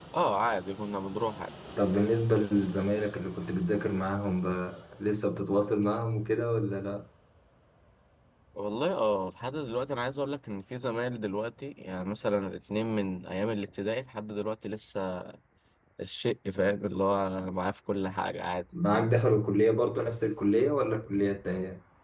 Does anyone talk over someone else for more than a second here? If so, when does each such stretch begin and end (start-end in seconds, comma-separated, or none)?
none